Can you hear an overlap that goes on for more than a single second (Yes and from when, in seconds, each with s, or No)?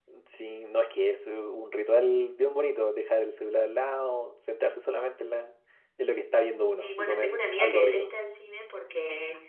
Yes, from 6.8 s